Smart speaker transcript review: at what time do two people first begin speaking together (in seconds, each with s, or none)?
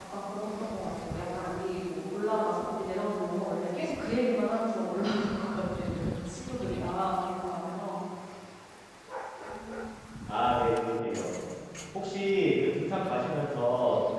none